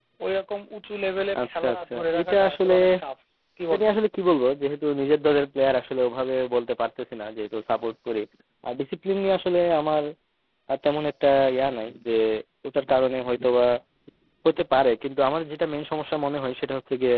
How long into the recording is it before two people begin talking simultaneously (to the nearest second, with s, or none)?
1 s